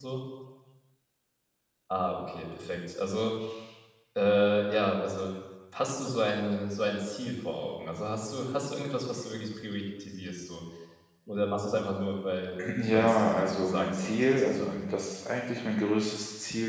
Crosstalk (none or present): present